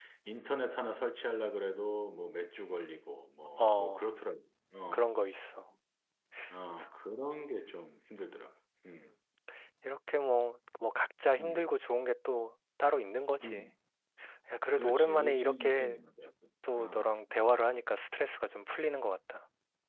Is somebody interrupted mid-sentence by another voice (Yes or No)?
Yes